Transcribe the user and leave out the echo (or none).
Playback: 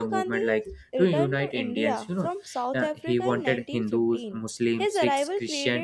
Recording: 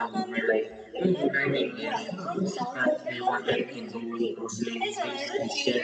none